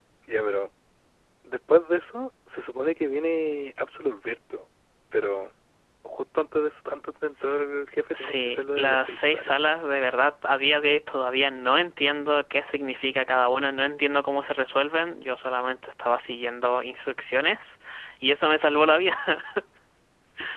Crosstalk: present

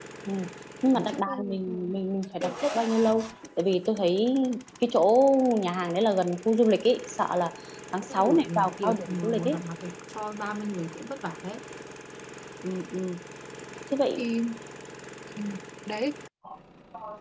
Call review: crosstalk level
present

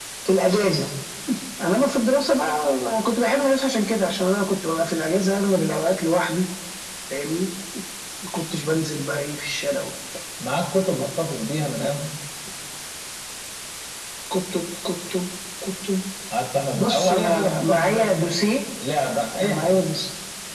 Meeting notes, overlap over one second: present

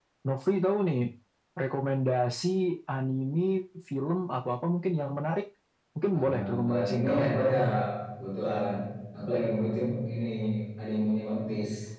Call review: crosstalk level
present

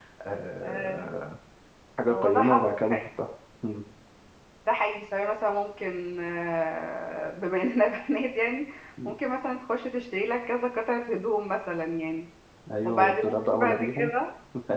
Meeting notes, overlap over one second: present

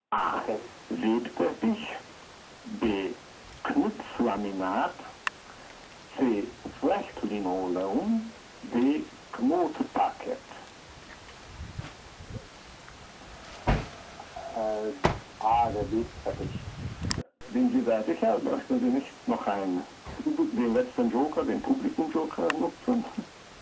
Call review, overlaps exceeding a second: none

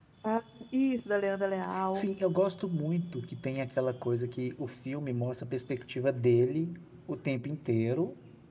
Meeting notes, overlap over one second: none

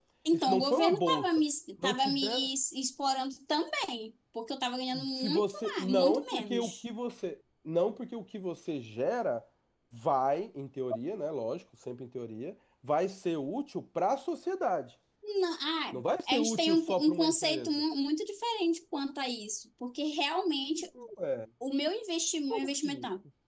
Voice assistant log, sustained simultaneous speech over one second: present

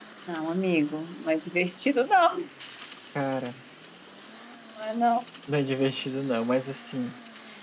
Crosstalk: none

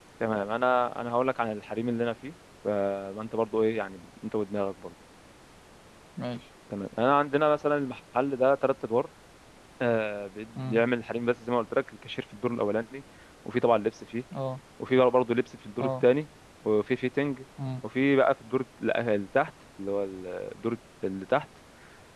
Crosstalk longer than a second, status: none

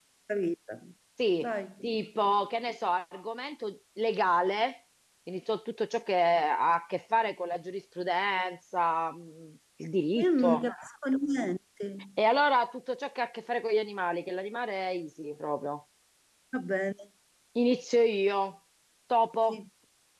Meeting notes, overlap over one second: none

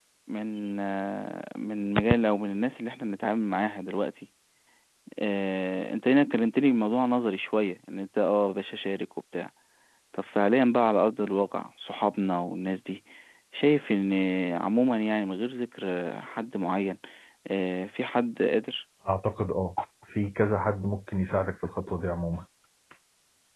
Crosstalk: none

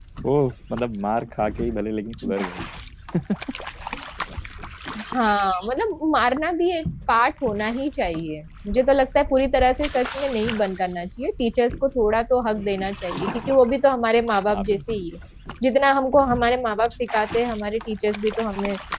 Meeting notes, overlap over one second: none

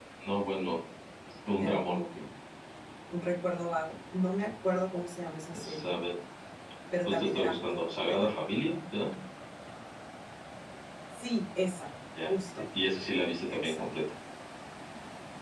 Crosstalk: present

